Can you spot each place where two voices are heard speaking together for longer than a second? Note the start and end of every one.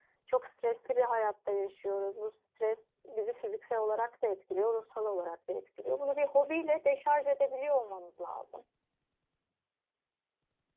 none

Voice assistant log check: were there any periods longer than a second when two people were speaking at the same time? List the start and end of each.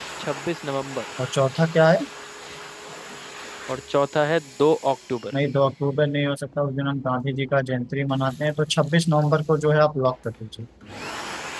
none

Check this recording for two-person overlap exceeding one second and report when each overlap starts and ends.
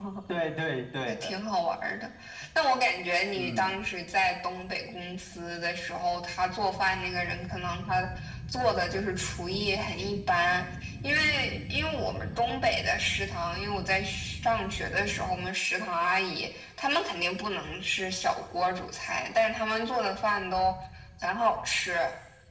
none

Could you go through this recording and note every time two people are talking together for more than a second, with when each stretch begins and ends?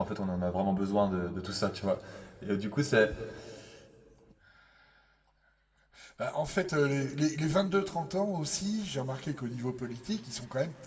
none

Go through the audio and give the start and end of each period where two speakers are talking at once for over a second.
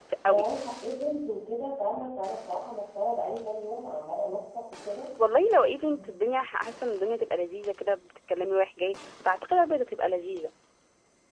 none

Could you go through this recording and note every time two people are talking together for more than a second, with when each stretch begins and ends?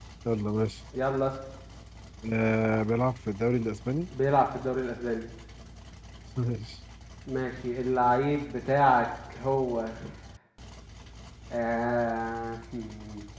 none

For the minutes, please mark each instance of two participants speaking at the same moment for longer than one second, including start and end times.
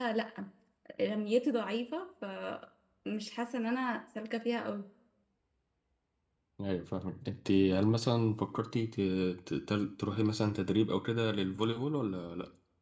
none

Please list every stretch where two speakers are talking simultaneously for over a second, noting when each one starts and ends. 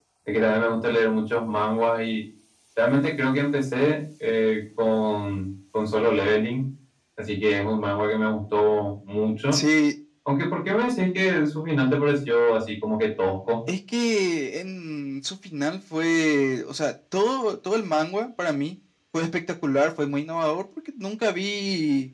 none

